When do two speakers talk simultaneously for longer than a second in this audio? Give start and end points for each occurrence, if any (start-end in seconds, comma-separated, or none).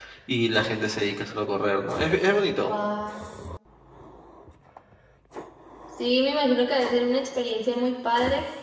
none